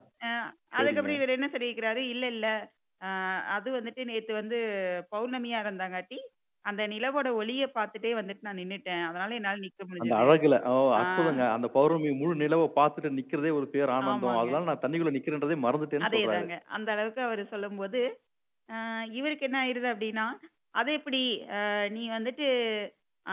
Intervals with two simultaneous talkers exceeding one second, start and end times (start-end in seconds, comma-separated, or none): none